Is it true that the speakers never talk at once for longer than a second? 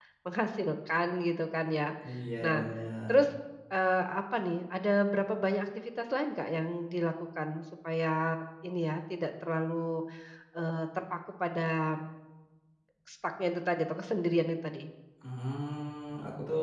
Yes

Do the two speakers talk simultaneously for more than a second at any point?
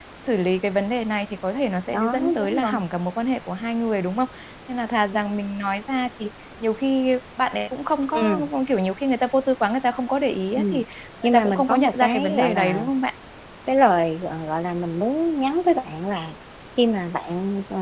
Yes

